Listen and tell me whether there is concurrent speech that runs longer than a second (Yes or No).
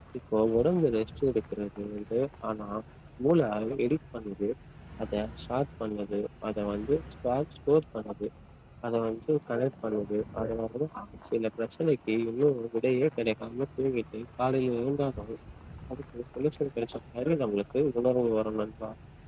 No